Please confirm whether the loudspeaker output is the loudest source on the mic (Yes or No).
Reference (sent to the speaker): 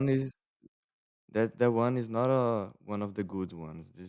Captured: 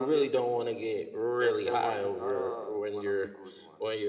No